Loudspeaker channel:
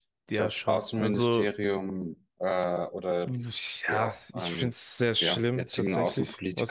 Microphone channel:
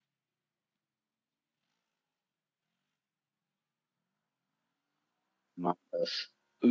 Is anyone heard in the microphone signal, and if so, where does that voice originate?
user only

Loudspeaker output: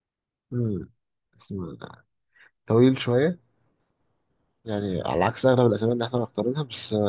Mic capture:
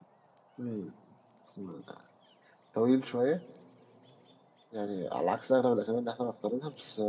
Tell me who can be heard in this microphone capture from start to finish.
echo only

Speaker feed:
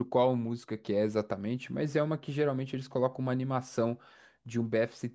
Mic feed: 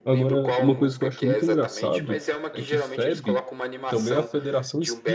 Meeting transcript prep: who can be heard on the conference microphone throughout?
both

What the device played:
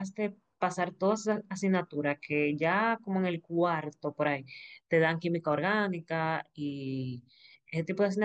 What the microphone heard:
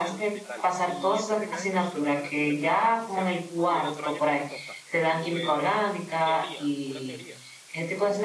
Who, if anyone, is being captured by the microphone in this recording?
both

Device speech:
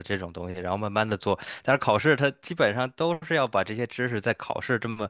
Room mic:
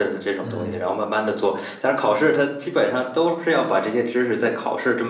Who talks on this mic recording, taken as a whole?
both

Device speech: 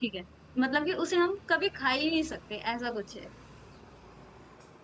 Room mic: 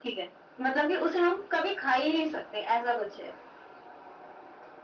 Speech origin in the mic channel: echo only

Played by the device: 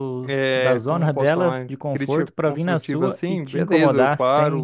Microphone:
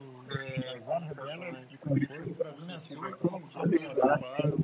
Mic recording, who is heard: echo only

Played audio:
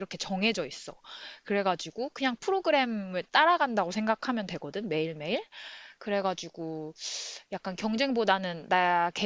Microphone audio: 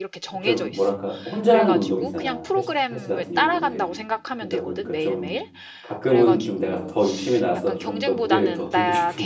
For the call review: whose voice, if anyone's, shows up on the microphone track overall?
both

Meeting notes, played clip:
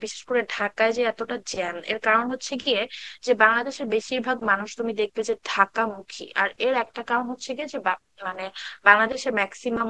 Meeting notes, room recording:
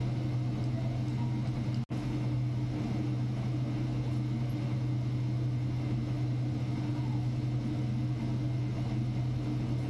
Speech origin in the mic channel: neither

